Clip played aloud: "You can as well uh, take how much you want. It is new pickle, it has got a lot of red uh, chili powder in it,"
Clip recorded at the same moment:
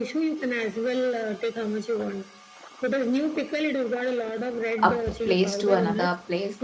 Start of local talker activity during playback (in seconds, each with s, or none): 4.8 s